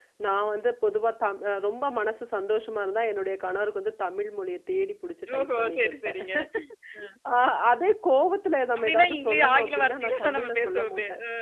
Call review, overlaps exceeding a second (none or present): present